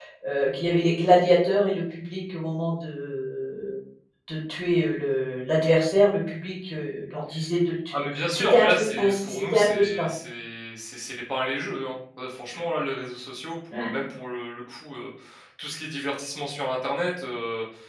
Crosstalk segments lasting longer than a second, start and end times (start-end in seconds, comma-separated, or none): 7.9-10.1